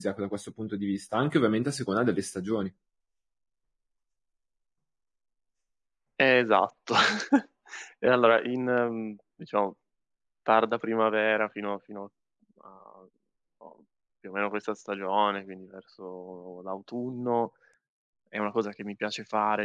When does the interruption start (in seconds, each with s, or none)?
none